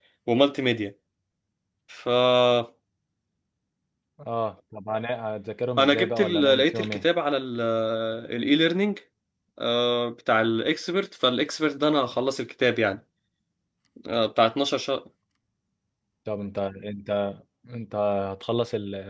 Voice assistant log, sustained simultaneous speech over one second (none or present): present